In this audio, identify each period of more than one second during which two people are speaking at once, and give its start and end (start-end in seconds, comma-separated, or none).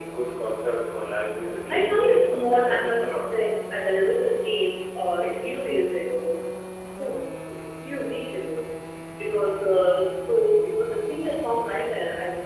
1.7-3.2